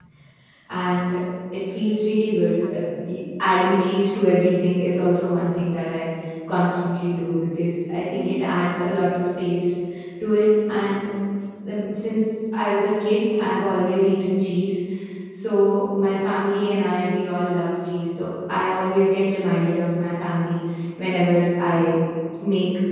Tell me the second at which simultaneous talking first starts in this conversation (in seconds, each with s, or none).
none